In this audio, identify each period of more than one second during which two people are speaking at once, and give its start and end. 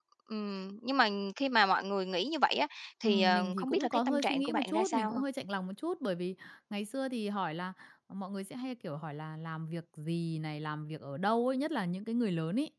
3.0-5.2

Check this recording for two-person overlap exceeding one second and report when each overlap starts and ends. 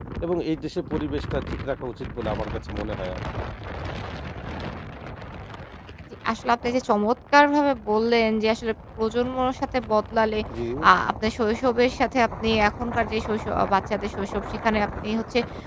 none

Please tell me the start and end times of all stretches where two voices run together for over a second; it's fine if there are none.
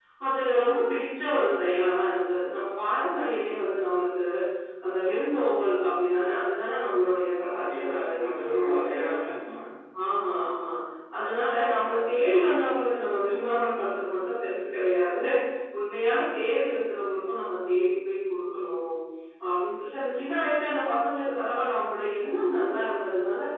7.6-9.1

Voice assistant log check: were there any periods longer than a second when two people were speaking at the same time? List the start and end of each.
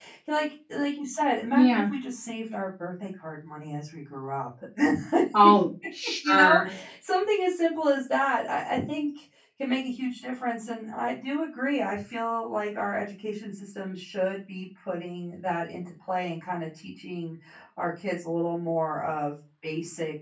none

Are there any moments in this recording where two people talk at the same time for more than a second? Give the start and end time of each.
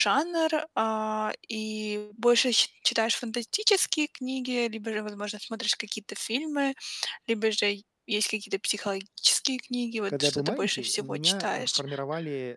10.1-11.8

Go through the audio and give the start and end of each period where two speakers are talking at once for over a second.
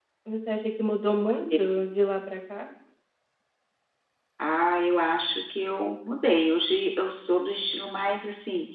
none

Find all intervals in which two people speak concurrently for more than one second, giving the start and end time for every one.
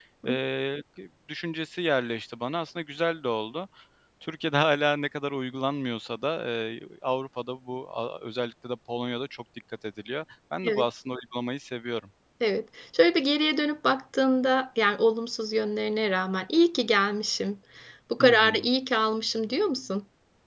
none

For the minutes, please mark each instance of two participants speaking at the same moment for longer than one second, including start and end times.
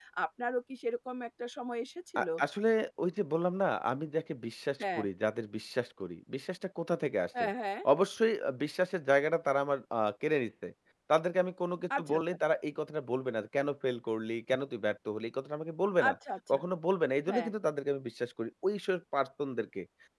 none

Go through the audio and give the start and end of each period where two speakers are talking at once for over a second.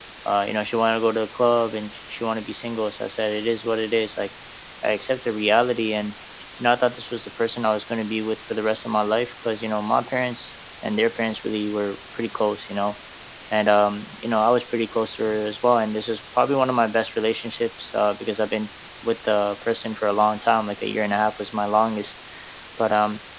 none

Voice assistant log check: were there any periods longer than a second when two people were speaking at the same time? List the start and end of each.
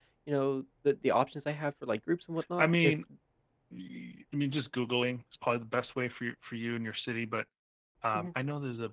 none

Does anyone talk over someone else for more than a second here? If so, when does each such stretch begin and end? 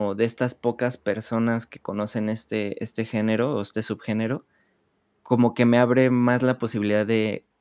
none

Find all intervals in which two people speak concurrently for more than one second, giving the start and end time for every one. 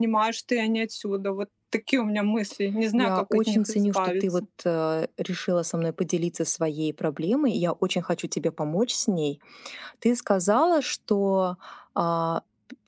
3.0-4.2

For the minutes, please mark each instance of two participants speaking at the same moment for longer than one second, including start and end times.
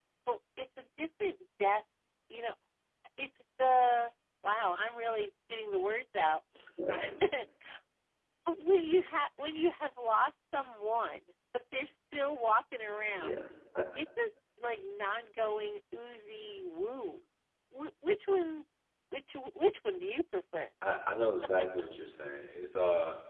none

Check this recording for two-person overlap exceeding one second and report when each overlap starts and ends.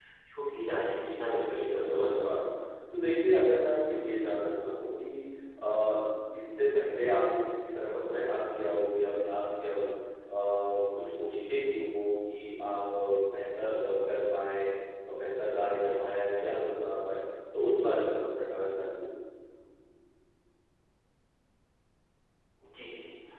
0.9-2.2

